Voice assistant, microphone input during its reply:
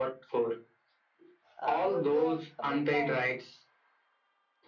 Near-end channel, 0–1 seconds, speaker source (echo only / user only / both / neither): echo only